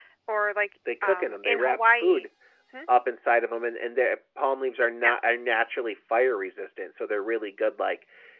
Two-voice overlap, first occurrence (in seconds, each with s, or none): 1.0 s